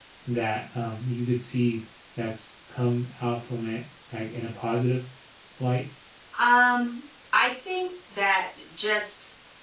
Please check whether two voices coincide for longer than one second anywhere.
No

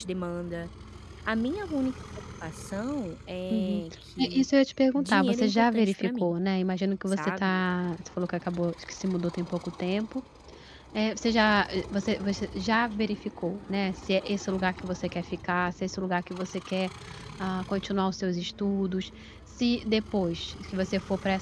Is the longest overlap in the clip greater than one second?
Yes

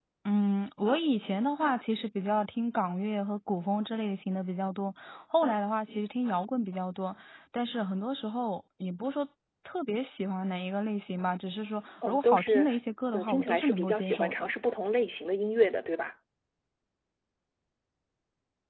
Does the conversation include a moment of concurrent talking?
Yes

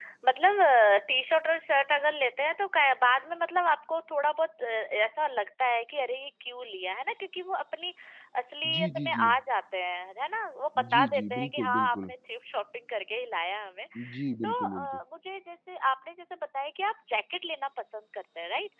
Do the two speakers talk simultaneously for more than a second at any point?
Yes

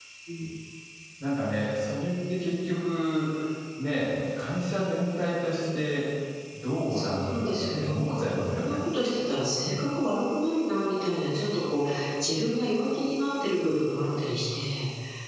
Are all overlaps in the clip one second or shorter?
No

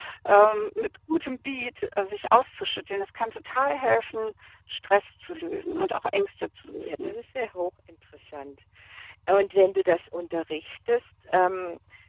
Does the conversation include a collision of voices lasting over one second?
No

